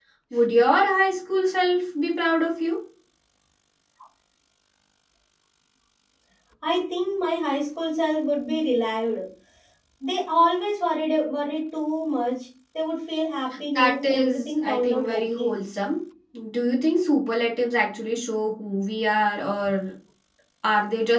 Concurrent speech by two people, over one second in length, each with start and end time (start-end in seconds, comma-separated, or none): 13.8-15.6